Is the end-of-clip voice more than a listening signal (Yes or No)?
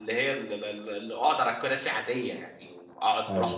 No